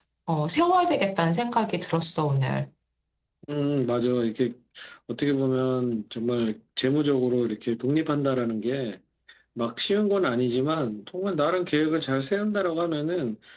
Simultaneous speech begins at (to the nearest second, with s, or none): none